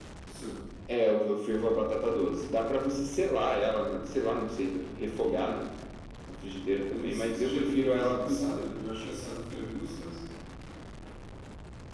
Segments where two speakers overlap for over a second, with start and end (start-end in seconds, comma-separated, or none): 6.9-8.8